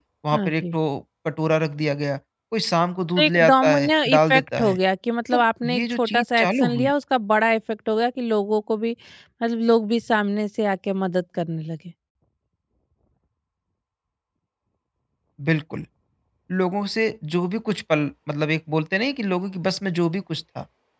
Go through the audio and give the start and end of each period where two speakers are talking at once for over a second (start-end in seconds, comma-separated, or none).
3.2-4.8, 5.3-6.9